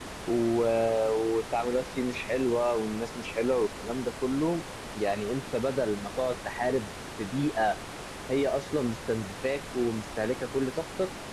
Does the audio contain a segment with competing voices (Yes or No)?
No